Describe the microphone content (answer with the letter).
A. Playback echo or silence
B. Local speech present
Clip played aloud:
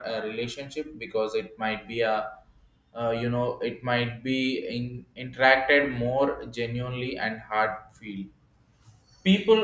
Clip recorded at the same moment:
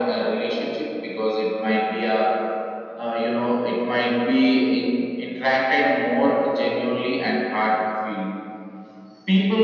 A